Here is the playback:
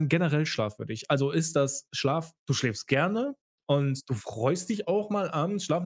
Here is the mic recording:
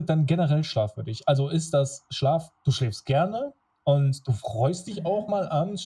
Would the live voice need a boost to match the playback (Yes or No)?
Yes